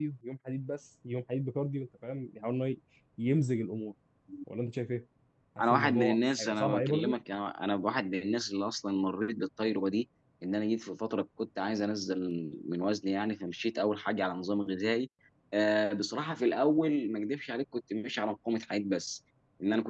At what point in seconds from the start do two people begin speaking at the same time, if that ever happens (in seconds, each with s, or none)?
5.7 s